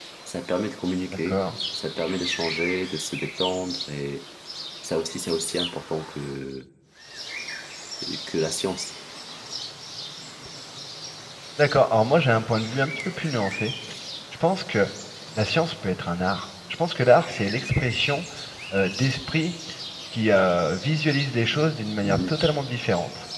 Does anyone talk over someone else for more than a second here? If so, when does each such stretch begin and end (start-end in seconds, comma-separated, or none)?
none